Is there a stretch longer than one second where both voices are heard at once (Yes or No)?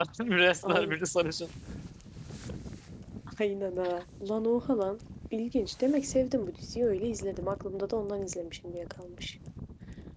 No